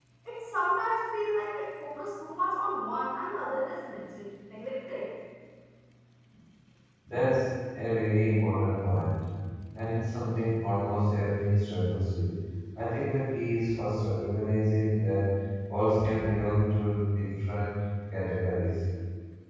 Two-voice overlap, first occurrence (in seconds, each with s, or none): none